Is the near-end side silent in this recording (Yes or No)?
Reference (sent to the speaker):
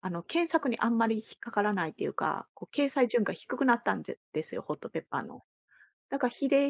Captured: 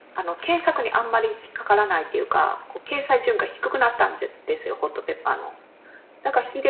Yes